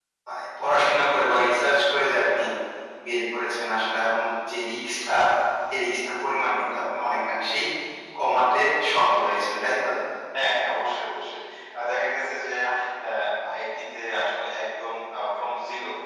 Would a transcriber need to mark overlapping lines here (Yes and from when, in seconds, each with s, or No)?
No